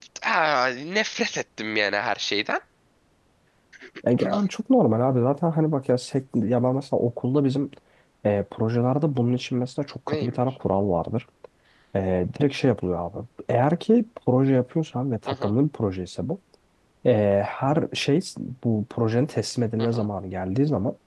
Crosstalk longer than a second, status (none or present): none